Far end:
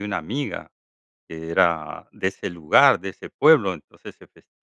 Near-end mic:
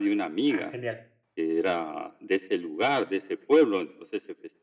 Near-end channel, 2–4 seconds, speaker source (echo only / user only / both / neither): echo only